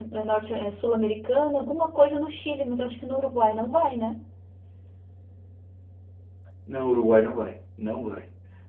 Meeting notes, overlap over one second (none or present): none